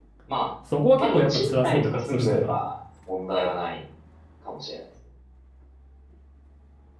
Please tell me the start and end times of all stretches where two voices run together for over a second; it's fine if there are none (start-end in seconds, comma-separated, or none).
1.0-2.5